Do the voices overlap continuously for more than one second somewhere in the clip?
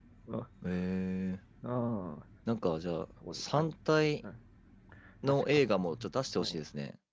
No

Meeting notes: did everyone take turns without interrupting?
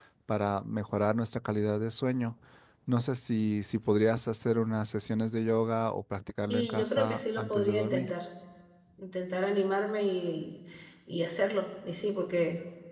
No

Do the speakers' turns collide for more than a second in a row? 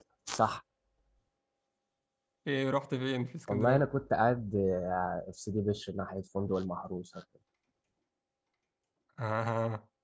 No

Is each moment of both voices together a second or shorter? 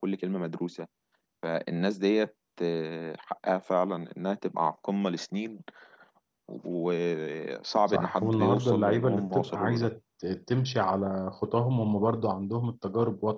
No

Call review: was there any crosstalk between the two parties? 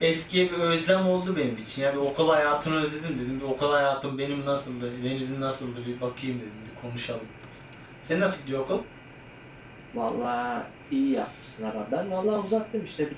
No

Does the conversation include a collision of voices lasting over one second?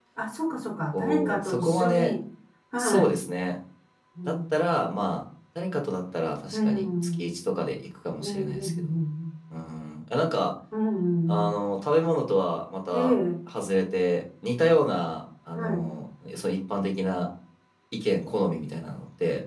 Yes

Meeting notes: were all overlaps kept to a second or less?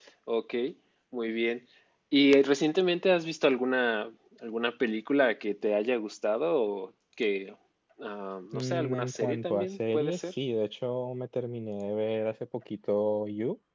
No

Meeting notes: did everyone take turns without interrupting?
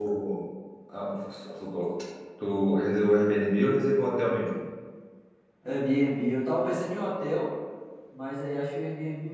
Yes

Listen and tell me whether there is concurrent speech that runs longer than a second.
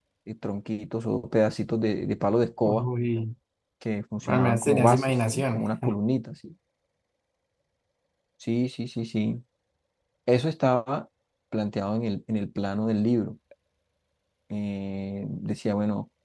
Yes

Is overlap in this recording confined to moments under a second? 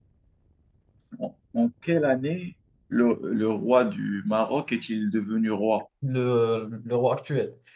Yes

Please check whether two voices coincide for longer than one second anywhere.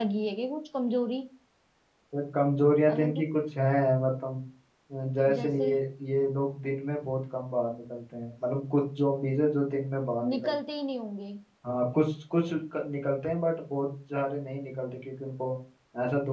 No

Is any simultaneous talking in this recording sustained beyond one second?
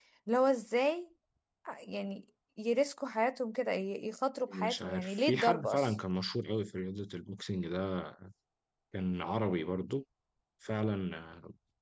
Yes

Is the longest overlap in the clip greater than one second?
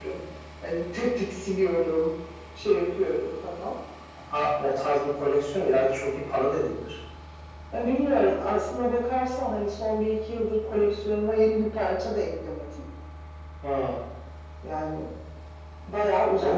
No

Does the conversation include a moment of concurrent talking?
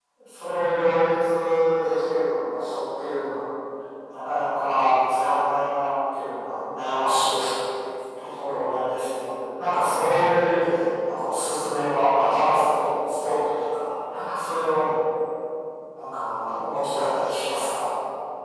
No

